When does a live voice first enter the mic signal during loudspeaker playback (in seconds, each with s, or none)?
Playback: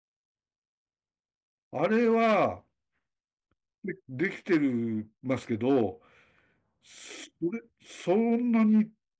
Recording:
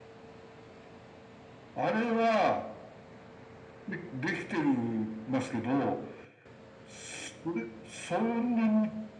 none